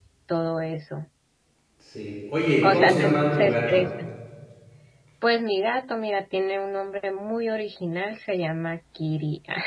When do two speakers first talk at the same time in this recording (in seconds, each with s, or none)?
2.6 s